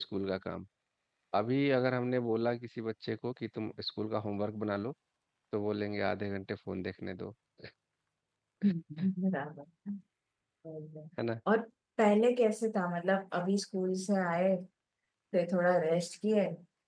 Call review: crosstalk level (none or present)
none